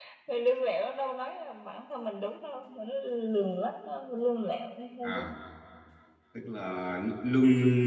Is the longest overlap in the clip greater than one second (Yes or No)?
No